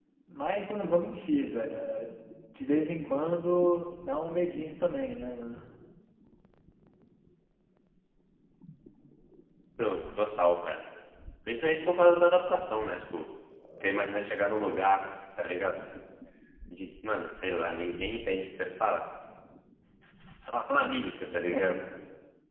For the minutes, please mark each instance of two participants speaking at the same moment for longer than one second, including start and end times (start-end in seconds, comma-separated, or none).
none